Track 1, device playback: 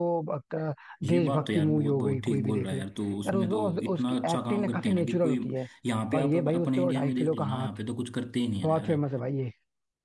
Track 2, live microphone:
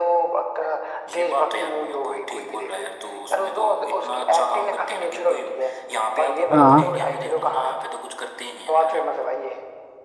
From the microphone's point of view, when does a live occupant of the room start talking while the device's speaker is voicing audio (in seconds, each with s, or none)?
6.5 s